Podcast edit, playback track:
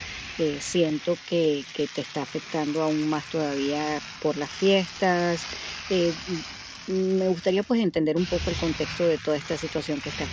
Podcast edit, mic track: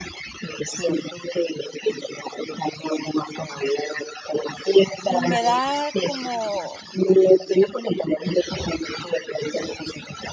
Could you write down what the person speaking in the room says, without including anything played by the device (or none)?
Y me da como,